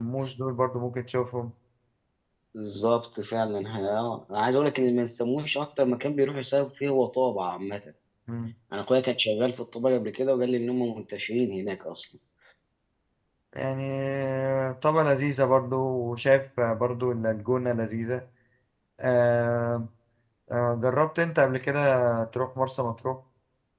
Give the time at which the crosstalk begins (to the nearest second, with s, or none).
none